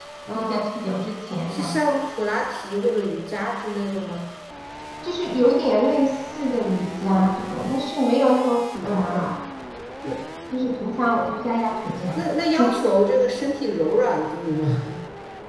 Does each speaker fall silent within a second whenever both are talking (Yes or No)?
Yes